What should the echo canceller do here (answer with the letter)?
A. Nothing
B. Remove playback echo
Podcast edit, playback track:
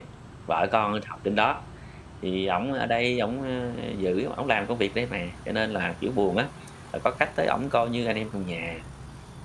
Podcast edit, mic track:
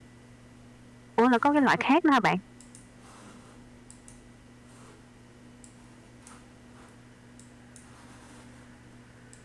A